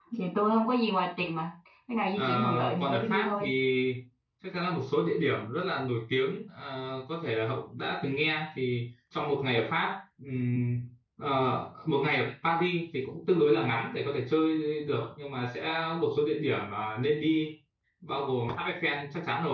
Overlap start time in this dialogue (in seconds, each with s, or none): 2.2 s